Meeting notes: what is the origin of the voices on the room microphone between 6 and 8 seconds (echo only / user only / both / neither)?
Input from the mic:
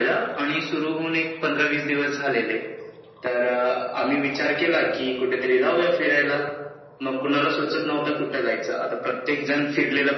echo only